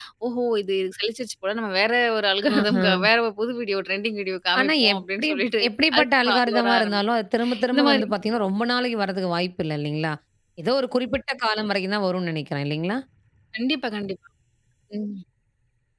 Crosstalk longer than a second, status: present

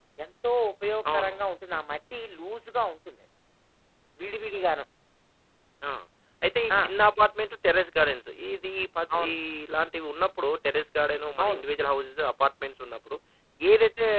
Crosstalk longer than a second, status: none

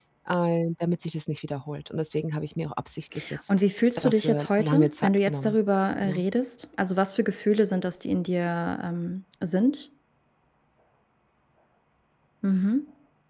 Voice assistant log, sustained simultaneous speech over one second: present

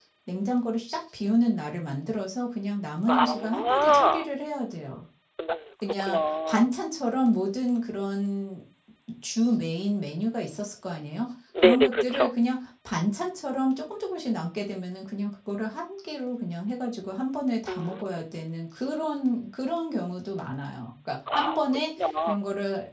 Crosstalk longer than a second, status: present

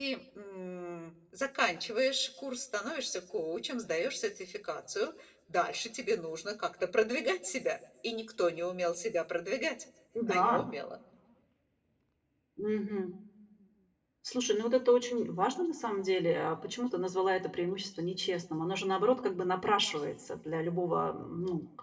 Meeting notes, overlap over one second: none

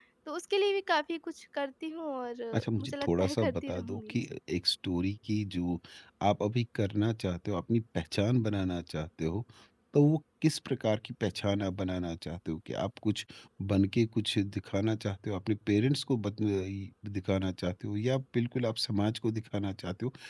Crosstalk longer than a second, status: present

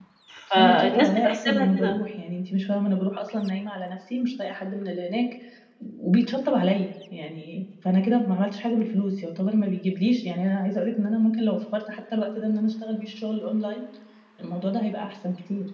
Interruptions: present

